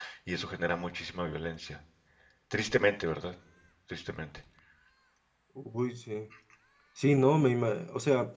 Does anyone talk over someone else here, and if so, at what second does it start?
none

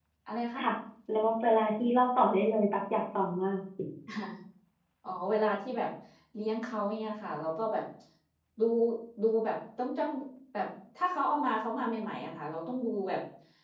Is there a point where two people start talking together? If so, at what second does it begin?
none

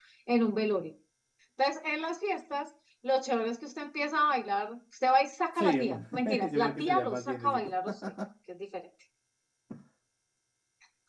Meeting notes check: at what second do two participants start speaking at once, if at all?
6 s

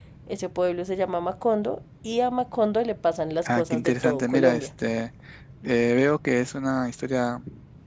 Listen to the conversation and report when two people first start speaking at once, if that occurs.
3 s

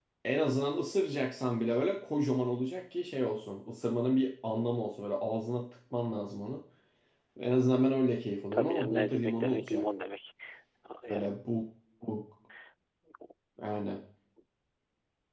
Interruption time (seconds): 9 s

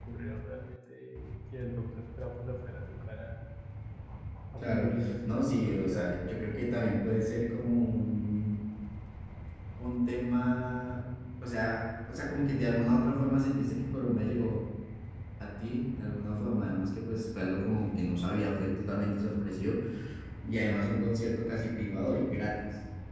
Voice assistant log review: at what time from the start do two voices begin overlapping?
5 s

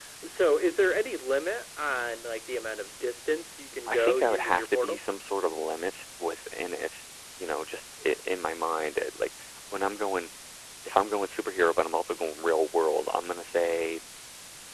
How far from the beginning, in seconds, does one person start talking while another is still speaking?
4 s

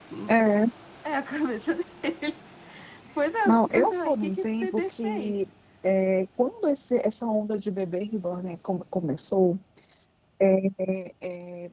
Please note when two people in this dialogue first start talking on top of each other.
3 s

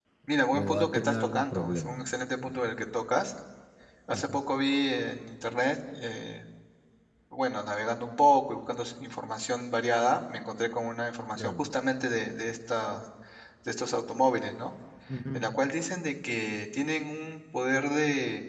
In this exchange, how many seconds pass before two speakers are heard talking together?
1 s

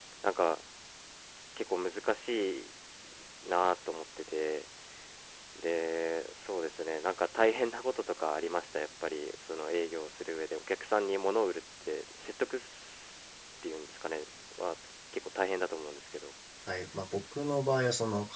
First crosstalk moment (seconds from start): none

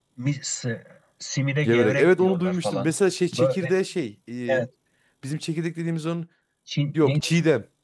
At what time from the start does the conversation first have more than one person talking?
2 s

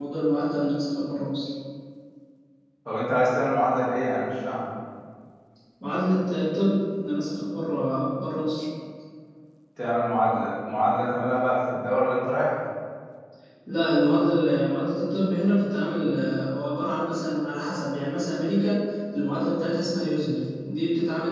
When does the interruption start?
none

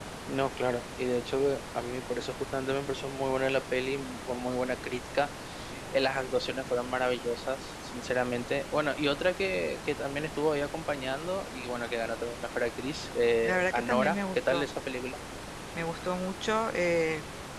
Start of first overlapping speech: 13 s

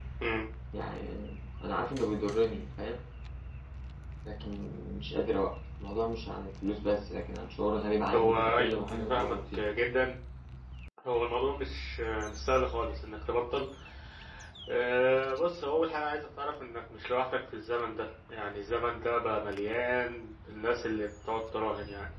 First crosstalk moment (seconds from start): 8 s

